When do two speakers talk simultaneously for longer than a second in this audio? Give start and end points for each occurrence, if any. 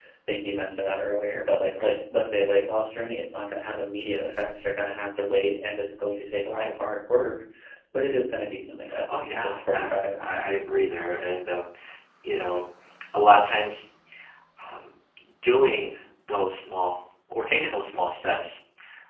9.1-10.4

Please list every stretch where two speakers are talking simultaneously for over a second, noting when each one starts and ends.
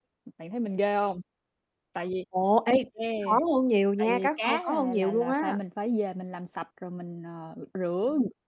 4.0-5.4

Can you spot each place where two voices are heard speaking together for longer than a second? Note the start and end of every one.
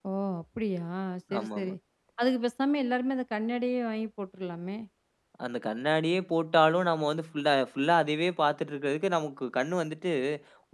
none

